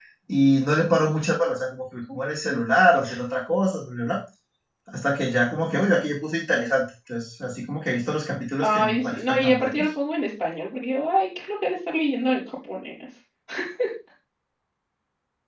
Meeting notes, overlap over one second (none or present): present